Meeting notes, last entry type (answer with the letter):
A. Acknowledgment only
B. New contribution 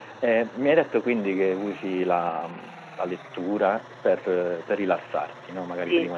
A